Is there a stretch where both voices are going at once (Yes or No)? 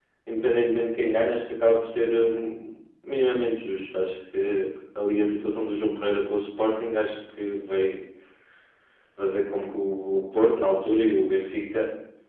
No